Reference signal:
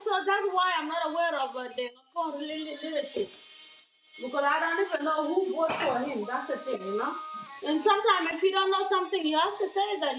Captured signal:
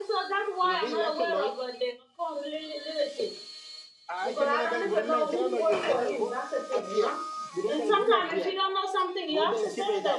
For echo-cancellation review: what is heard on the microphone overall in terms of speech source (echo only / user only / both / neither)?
both